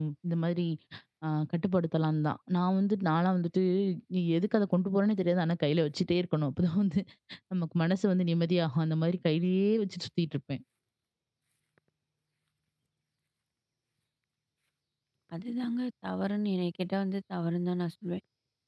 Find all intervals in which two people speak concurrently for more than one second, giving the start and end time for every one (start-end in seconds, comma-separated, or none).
none